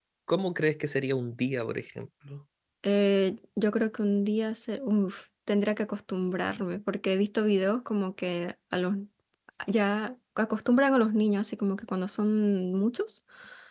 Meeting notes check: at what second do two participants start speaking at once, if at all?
none

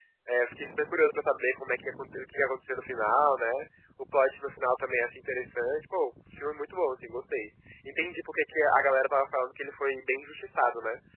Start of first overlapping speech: none

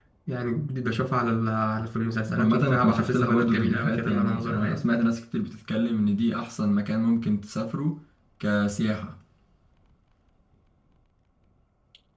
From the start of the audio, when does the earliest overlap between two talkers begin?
2.3 s

